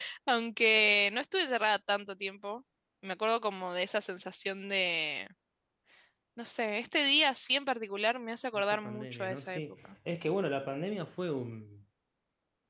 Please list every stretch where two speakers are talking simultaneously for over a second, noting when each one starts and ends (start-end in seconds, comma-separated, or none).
8.5-9.9